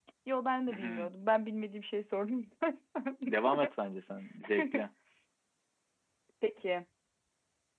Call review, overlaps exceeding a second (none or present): none